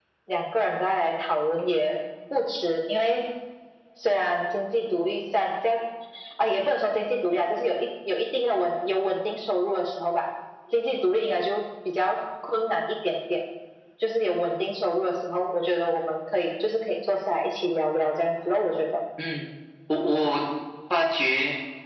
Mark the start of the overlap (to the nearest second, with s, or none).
none